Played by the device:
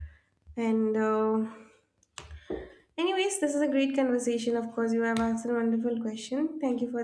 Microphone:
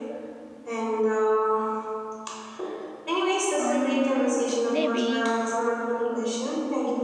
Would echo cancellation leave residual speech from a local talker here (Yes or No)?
Yes